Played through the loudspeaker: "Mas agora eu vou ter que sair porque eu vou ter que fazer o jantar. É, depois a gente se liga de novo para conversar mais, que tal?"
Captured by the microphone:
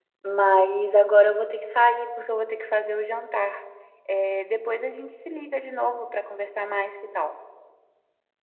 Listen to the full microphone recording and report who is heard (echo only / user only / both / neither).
echo only